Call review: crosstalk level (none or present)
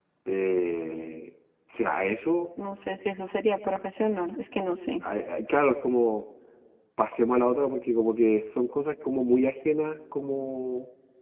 none